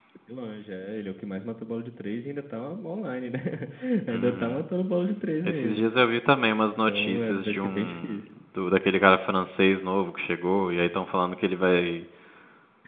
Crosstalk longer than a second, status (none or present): present